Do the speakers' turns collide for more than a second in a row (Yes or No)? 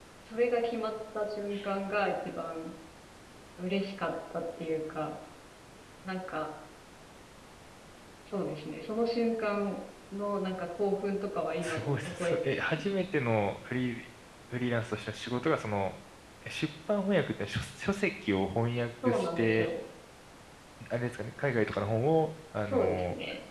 Yes